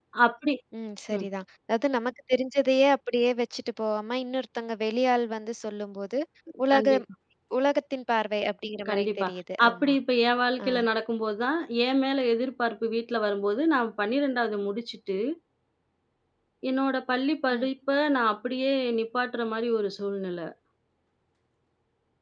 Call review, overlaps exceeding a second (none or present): none